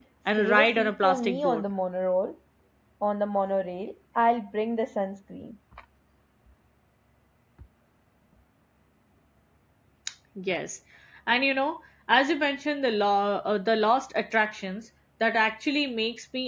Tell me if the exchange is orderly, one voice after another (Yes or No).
No